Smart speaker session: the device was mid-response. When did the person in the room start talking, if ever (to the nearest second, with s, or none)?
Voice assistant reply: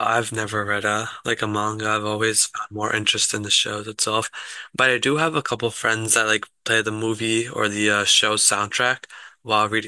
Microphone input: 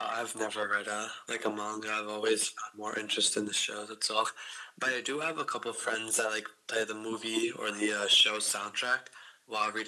none